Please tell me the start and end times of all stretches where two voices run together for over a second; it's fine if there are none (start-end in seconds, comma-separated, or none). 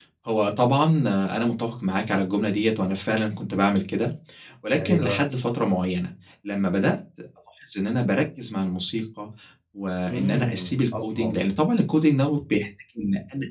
10.1-11.5